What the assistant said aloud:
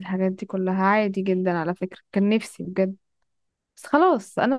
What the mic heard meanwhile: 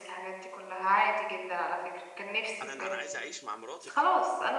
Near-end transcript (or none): انا انا عايز اعيش مع مراتي